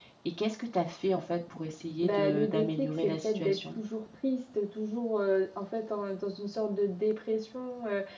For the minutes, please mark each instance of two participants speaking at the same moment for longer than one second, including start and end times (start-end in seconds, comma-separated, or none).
2.0-3.6